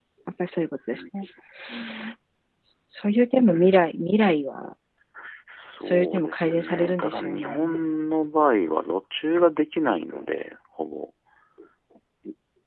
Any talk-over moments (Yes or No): Yes